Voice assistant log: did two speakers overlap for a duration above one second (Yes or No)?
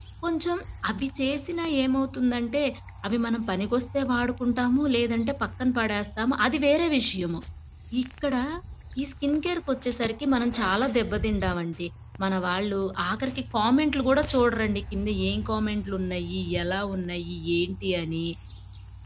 No